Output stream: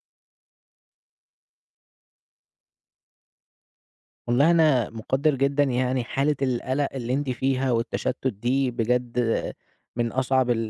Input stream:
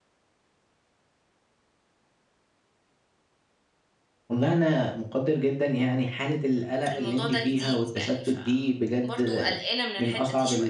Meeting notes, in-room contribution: present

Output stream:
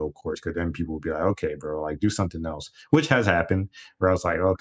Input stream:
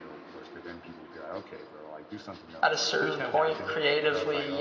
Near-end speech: present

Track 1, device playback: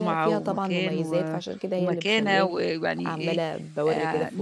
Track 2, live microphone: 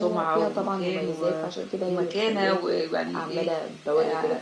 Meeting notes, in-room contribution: none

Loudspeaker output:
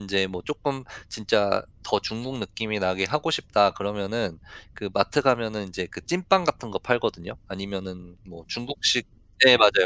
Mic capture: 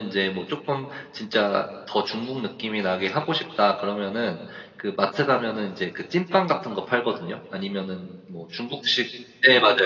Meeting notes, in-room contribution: none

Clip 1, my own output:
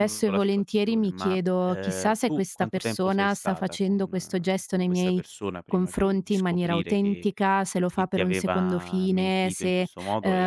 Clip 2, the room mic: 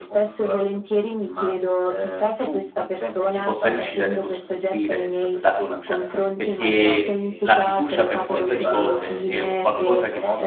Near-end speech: present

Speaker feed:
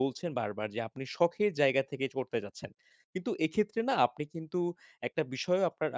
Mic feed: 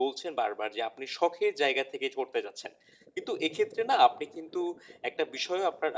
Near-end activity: none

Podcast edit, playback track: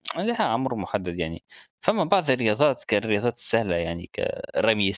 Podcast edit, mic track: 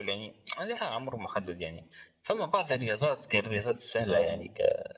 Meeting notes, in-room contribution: present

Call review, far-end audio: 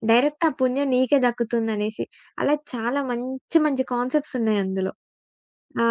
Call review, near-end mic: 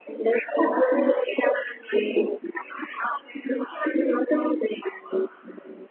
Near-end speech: none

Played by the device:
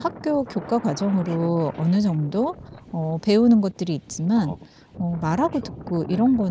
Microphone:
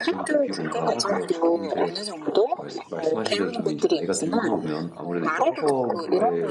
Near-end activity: present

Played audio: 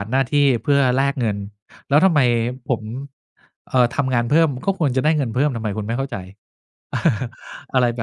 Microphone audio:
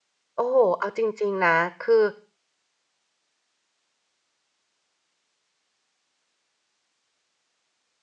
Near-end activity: present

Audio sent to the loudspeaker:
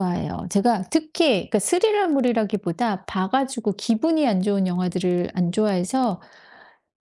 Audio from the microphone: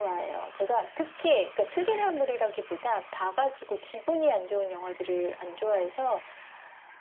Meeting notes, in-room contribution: none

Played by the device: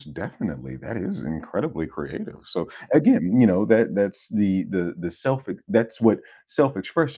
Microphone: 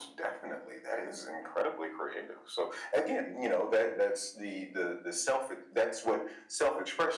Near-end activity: none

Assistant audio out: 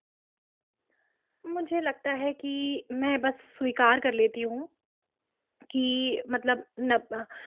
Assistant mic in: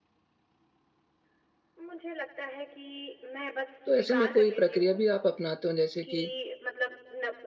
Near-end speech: present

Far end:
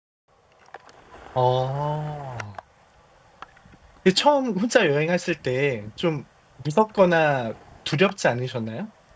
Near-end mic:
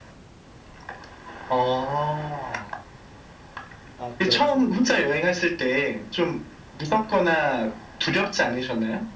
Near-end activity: present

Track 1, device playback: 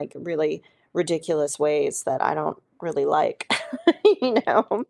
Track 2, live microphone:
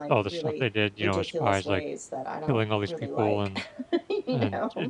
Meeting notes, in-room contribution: present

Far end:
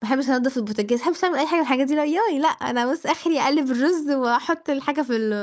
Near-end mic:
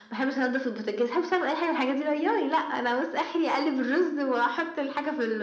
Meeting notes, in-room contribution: none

